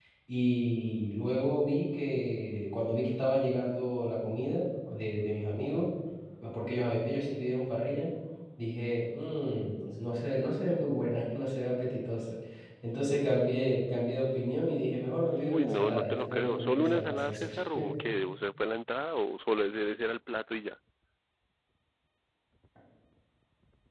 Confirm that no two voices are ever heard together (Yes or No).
No